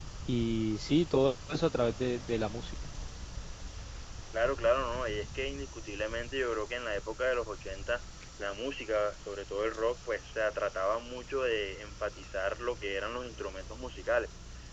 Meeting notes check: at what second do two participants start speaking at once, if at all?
none

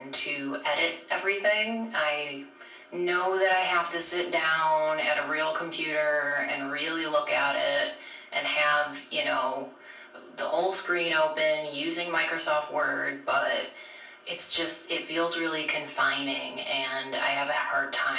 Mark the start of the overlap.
none

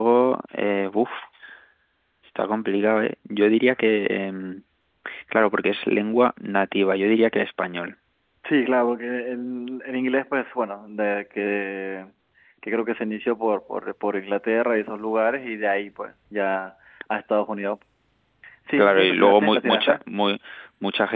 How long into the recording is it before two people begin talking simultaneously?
18.8 s

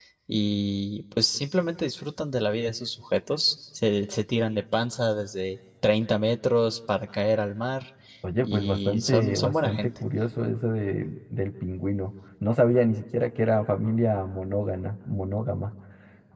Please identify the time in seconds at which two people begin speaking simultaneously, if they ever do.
8.4 s

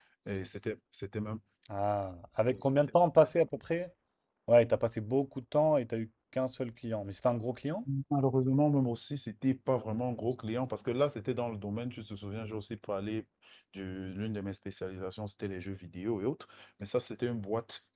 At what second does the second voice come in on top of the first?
none

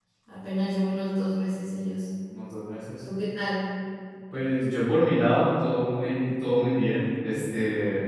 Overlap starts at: none

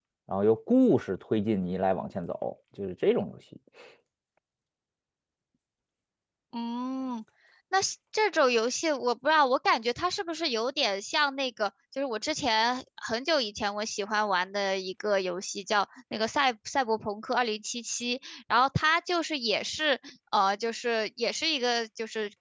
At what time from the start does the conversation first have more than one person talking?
none

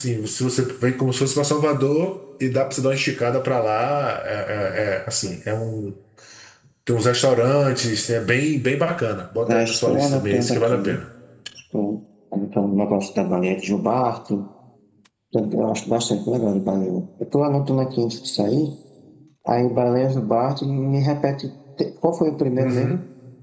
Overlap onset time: 9.5 s

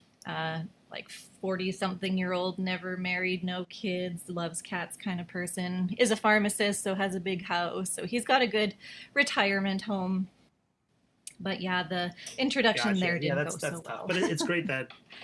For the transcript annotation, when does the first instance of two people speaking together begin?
12.7 s

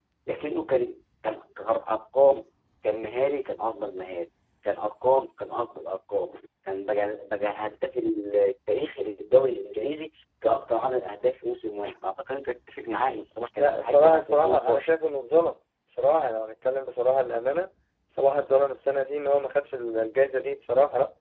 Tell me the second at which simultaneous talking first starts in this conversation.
13.5 s

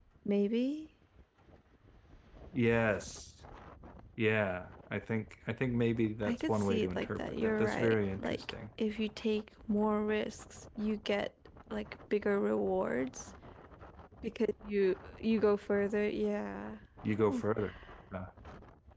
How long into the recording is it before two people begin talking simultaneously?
6.2 s

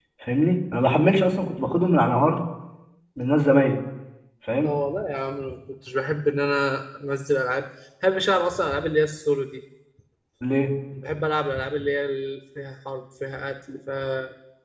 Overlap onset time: none

